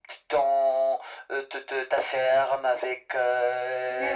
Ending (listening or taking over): listening